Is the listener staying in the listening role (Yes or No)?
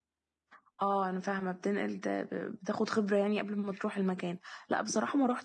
Yes